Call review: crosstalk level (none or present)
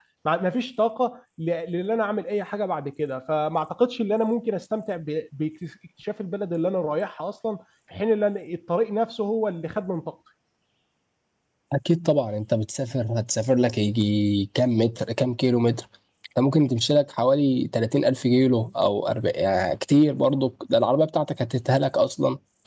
none